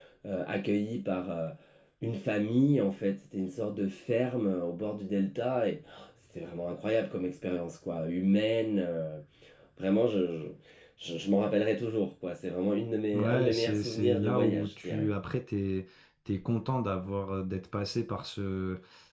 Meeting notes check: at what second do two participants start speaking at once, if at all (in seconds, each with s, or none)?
13.1 s